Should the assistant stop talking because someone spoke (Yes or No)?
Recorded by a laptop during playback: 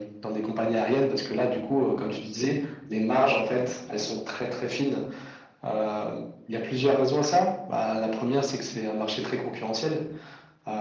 No